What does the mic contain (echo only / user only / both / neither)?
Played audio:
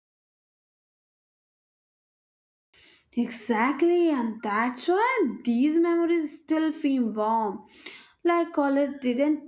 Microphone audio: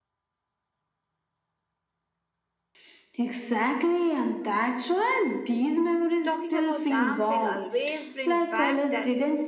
both